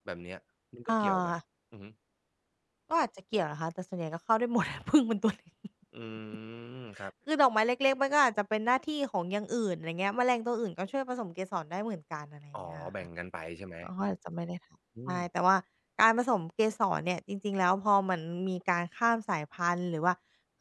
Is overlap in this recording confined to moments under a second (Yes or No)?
Yes